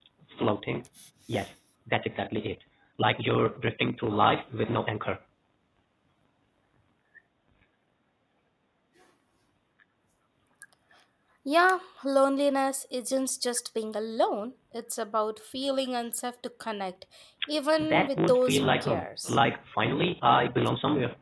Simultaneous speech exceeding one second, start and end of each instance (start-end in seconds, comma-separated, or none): 17.8-19.4